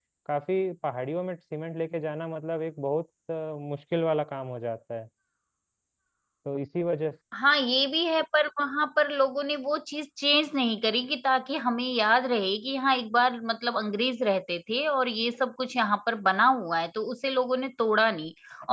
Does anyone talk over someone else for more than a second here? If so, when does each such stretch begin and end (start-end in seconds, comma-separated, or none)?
none